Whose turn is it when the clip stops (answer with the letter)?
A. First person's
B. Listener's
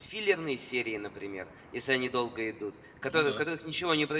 A